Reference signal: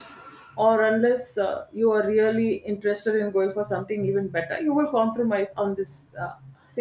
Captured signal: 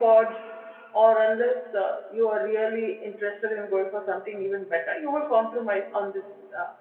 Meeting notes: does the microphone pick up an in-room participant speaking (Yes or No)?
No